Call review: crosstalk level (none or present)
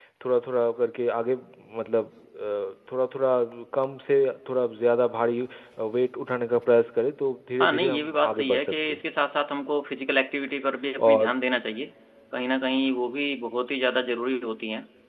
present